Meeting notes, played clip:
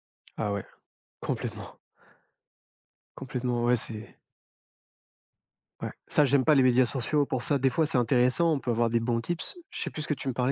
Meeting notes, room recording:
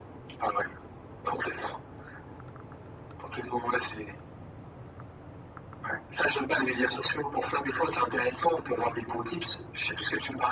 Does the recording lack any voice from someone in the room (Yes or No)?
Yes